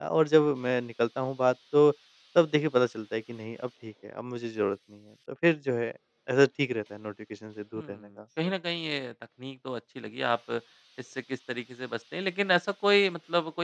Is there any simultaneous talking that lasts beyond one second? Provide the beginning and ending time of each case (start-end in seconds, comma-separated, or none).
none